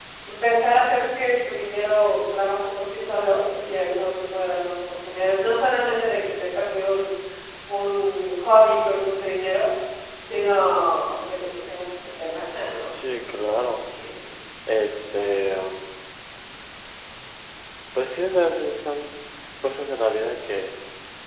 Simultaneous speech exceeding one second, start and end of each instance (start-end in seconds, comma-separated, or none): none